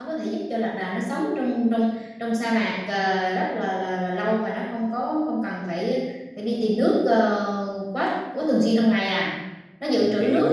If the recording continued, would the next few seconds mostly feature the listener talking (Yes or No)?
Yes